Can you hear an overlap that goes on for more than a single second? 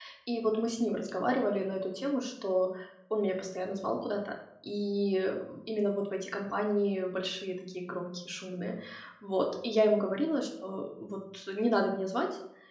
No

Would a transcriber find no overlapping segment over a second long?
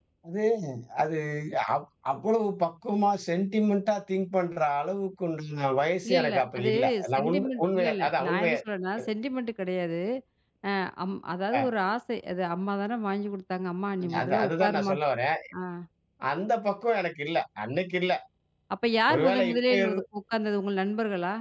No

